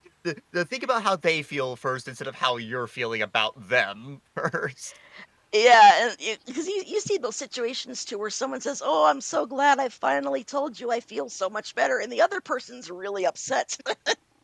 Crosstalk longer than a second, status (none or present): none